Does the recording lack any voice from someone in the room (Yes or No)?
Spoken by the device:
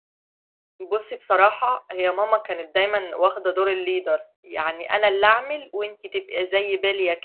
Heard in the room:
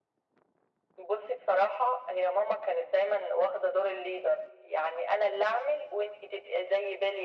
Yes